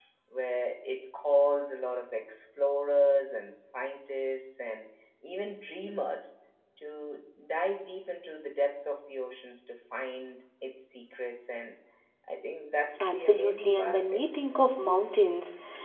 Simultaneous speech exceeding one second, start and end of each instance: 13.0-14.2

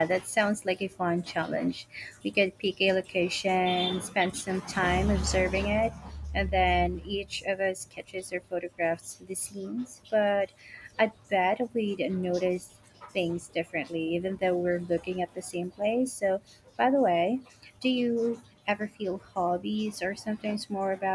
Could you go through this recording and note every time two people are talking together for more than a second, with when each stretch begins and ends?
none

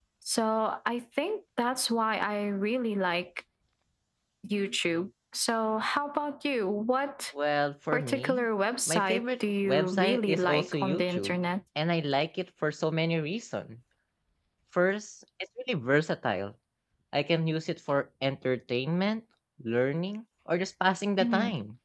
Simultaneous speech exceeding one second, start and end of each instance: 8.9-11.4

